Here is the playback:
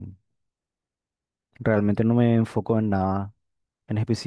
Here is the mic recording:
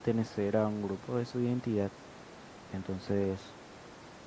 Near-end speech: present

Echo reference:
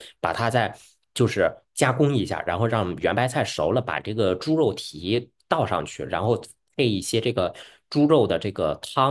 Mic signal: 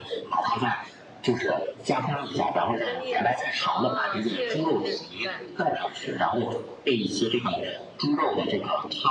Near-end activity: present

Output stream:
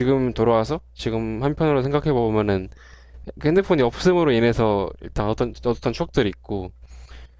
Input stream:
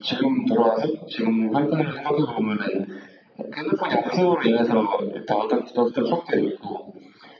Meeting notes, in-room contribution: none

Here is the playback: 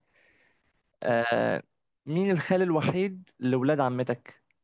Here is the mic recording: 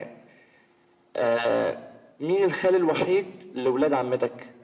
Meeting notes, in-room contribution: none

